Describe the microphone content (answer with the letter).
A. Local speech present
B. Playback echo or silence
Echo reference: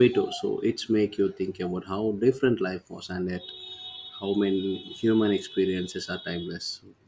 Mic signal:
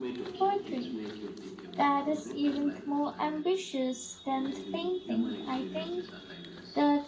A